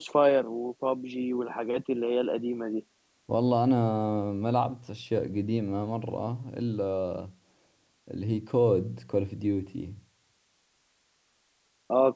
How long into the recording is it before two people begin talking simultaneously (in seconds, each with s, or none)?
none